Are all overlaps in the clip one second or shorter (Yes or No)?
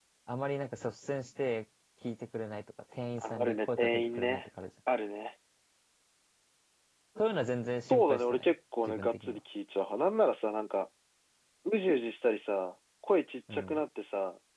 No